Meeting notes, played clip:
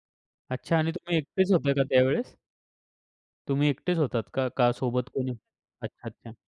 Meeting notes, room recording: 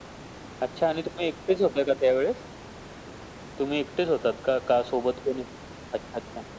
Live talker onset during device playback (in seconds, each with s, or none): none